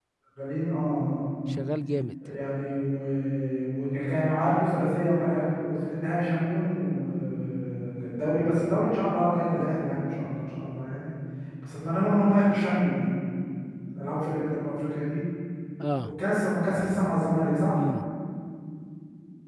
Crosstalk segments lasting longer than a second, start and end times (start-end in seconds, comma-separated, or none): none